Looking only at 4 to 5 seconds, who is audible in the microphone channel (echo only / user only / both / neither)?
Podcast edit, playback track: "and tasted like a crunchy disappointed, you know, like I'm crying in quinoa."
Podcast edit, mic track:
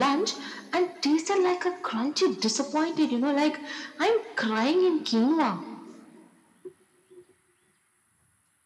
echo only